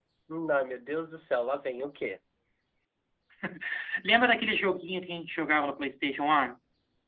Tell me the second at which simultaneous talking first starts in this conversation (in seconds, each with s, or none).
none